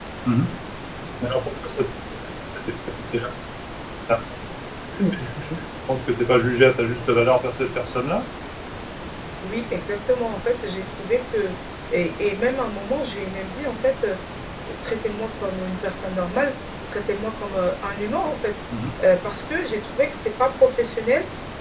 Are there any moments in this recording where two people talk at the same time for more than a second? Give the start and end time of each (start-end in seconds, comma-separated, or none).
none